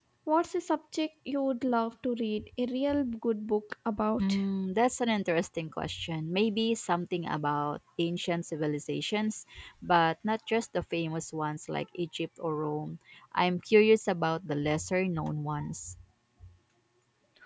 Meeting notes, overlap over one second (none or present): none